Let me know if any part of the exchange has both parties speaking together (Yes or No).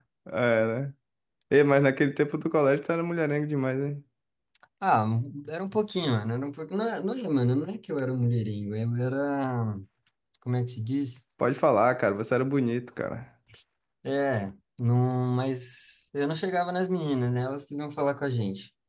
No